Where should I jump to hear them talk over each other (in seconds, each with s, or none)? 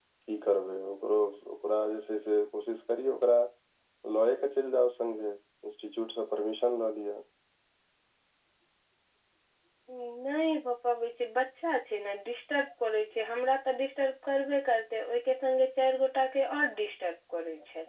none